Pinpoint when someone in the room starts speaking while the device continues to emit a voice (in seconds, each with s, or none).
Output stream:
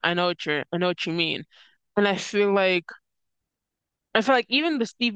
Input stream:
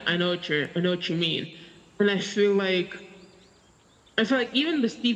none